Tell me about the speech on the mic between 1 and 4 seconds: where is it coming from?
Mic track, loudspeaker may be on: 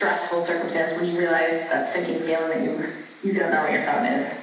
echo only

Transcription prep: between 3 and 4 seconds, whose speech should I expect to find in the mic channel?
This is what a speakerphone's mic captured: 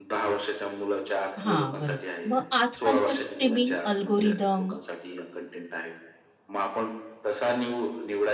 both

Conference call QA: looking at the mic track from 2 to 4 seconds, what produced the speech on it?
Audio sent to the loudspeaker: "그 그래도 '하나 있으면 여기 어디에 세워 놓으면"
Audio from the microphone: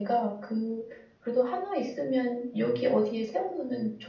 echo only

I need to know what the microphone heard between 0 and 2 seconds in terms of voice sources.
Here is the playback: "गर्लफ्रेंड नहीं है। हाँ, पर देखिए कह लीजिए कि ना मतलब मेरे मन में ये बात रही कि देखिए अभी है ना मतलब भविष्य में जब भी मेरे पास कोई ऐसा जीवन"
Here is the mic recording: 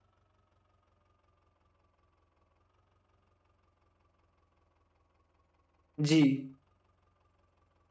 neither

